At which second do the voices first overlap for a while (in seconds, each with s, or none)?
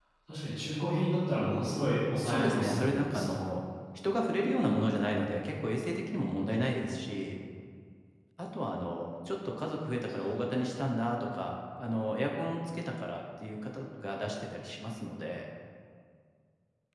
2.2 s